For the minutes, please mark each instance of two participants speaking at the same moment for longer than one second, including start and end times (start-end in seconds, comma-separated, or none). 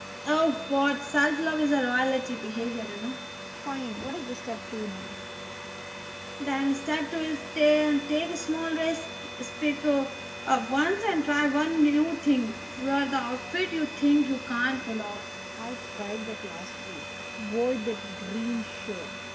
none